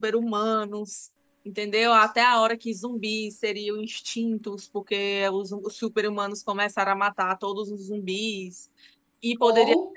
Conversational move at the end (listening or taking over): listening